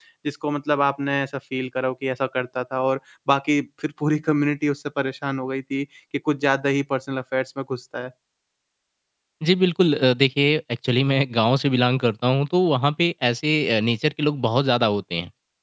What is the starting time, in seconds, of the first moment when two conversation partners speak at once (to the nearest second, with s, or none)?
none